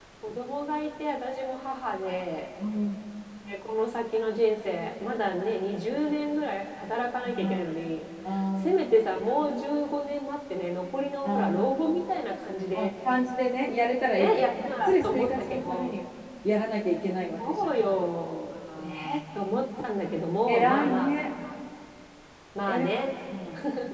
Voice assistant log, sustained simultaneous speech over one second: present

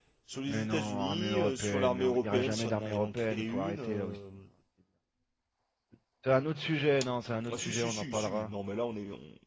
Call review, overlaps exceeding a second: present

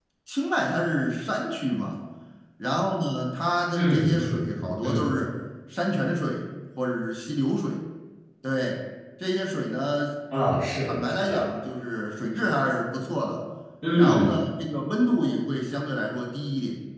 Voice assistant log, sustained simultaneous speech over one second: present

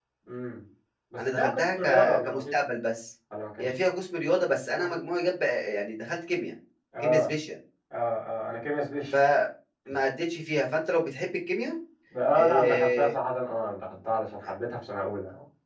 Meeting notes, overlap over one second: present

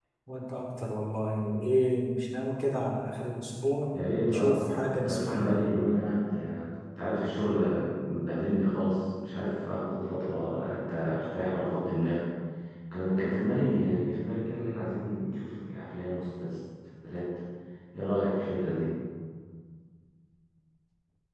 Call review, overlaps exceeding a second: present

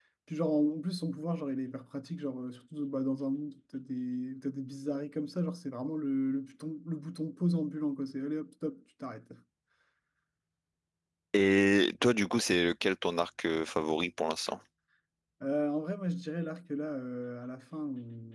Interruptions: none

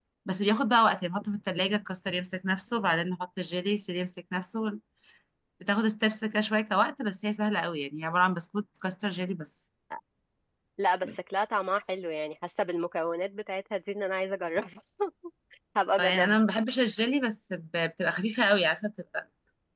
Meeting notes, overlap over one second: none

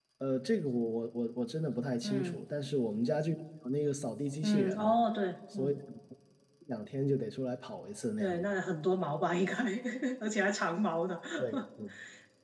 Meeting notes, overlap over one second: none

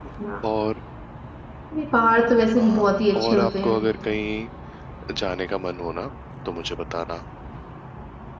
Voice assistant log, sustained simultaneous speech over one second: present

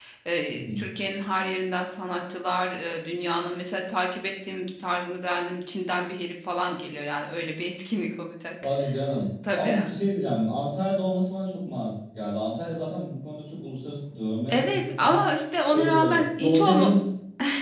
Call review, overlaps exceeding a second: present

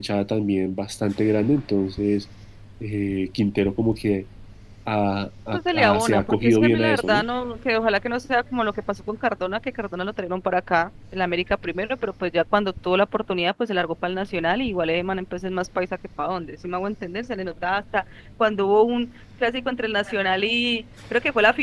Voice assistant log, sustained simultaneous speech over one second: present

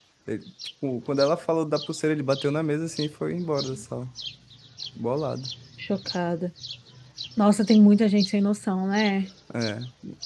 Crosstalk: none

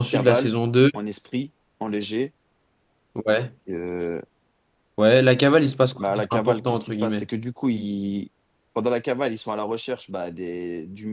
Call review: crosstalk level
present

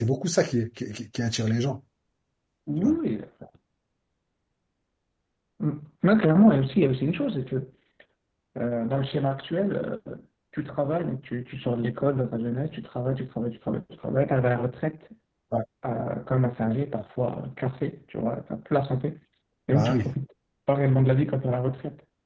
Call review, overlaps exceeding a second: none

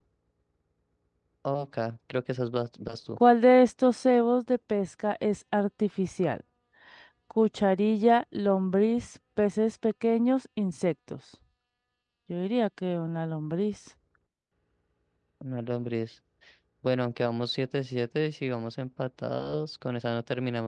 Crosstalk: none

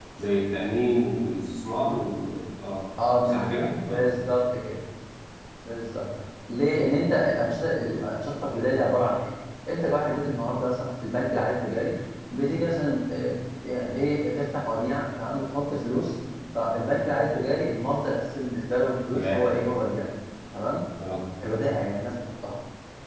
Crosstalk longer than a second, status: none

